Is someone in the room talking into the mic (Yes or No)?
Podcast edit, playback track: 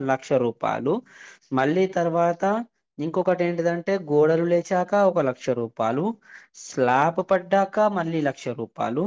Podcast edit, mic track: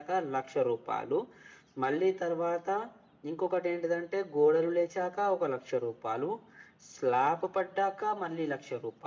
No